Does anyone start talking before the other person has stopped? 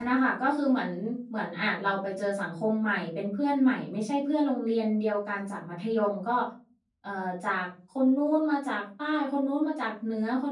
No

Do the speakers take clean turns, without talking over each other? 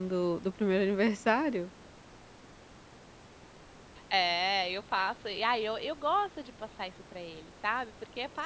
Yes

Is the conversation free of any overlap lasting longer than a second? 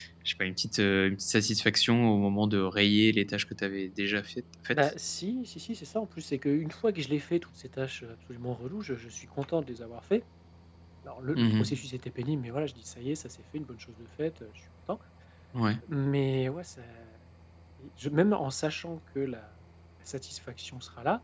Yes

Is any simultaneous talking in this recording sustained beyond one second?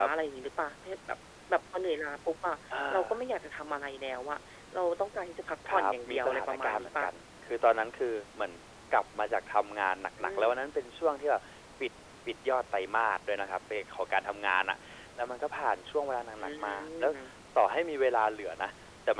Yes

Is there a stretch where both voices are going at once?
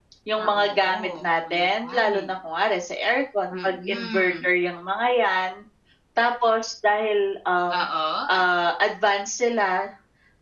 Yes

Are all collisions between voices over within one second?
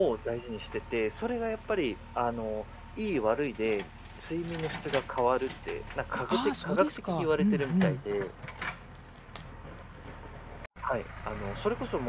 No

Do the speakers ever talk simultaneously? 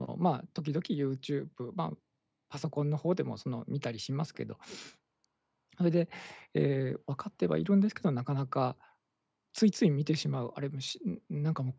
No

